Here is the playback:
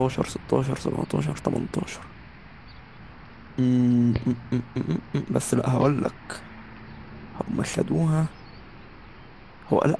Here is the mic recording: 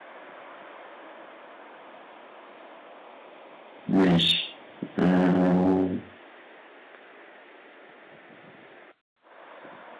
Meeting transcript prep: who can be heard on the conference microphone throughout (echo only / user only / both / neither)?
user only